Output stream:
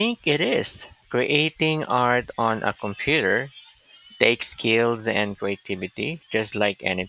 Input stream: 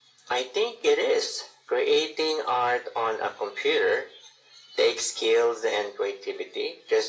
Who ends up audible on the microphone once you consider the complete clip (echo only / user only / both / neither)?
echo only